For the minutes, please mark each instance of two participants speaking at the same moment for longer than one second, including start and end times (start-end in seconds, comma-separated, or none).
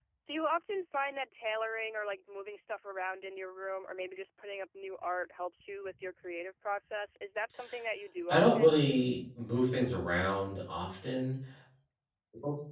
none